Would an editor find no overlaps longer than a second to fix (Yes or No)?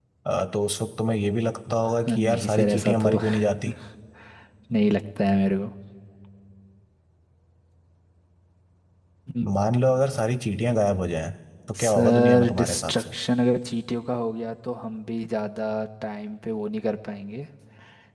No